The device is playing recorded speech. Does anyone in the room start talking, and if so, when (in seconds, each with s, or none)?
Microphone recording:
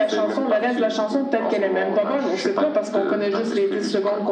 none